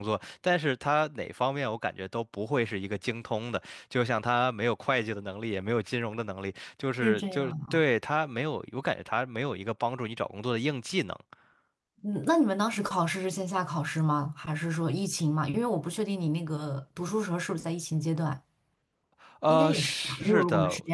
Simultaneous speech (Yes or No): Yes